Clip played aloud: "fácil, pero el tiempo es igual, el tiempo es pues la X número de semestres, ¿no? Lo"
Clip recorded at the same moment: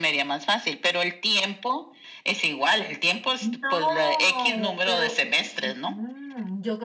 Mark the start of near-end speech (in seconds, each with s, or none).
3.4 s